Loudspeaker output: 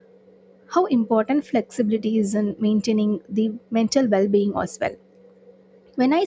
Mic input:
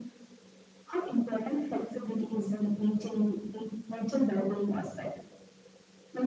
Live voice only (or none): none